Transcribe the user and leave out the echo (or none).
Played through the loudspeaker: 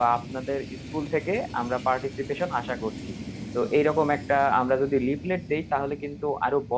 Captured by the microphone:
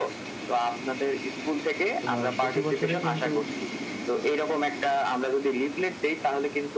তোমার প্রতি বছরে কিন্তু